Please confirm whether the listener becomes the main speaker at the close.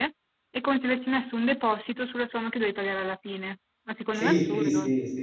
Yes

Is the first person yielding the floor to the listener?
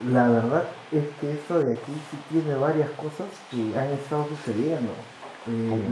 No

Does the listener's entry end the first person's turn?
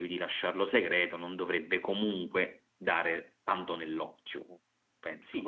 Yes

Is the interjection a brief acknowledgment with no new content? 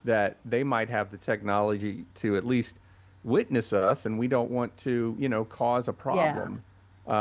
Yes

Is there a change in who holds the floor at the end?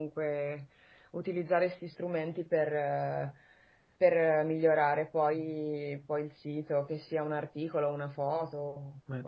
Yes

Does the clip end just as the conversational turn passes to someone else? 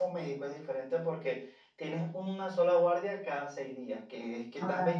No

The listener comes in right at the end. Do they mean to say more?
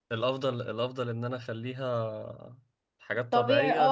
Yes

